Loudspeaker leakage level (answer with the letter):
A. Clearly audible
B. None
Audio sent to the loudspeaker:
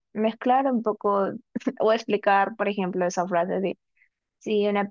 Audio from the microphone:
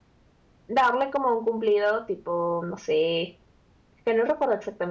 B